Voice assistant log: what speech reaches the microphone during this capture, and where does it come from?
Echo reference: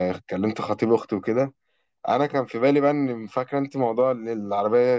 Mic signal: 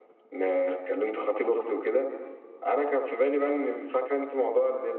echo only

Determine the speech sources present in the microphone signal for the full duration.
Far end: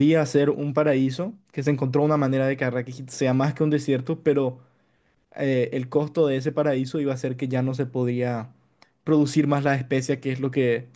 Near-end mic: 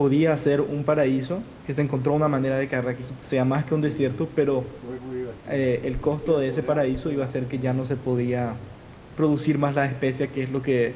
both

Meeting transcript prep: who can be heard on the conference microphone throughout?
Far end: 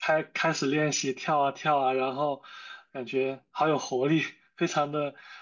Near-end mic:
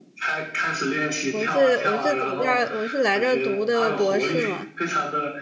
both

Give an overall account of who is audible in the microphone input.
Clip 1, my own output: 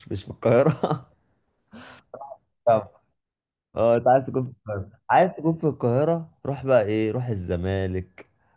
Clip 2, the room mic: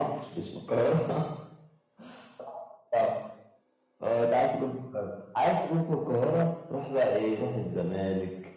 echo only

